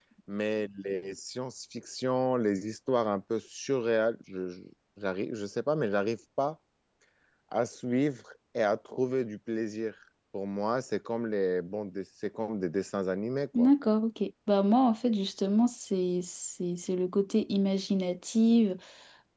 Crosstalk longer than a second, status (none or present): none